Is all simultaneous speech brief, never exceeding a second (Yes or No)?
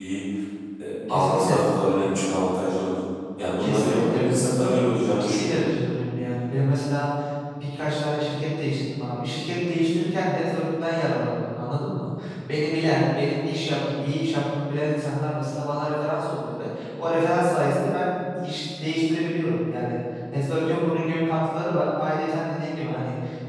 No